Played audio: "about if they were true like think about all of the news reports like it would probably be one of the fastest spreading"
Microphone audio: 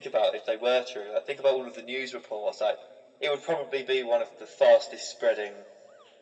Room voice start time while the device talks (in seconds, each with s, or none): none